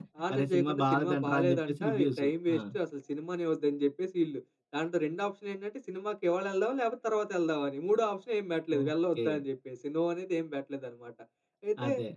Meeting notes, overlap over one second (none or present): present